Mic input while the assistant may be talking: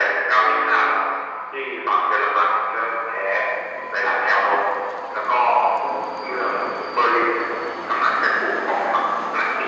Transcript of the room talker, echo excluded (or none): none